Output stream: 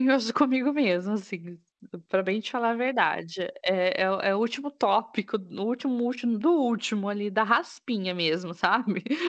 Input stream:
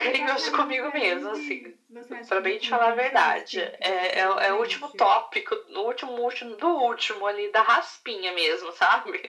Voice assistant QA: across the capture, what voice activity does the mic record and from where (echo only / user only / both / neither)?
both